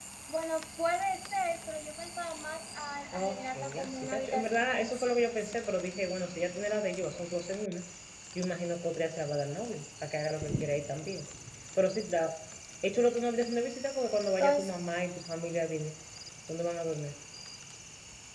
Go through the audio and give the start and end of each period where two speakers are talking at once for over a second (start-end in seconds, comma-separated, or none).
3.1-5.5